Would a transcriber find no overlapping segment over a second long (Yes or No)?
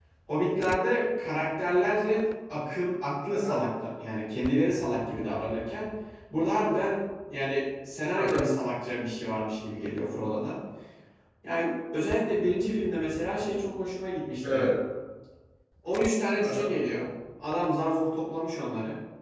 Yes